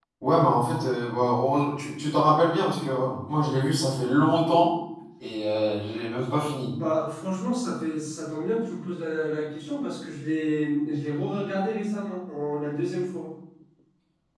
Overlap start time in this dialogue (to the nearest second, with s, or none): none